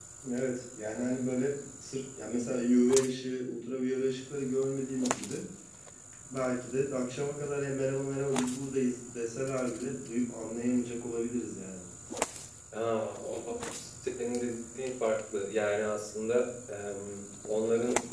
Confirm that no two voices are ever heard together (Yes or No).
Yes